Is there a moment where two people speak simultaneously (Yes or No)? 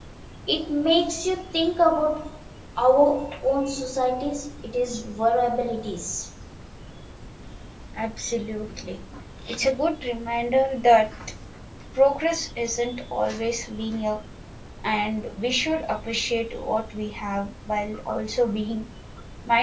No